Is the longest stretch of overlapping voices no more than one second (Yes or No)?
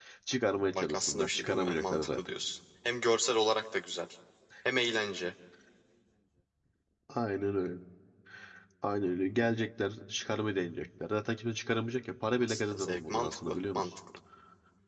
No